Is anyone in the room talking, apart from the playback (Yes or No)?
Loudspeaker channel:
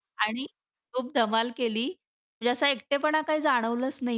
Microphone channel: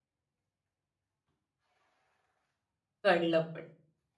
Yes